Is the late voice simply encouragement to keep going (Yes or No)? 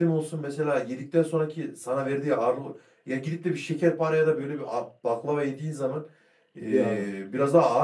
Yes